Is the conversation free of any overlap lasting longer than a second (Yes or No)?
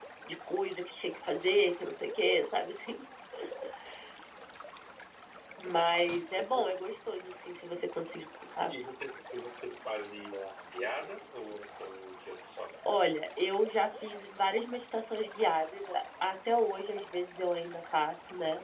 Yes